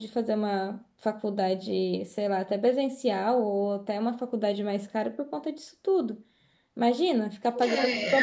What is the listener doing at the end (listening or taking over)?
taking over